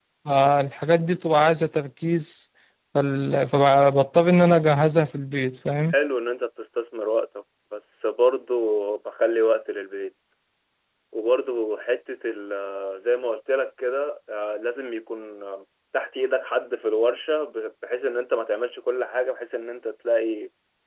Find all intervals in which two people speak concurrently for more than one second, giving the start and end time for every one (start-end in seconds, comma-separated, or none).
none